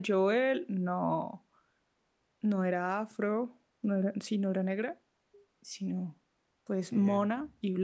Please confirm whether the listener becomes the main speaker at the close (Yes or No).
No